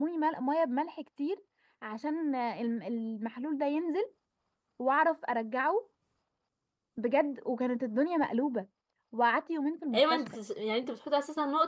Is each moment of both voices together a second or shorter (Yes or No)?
Yes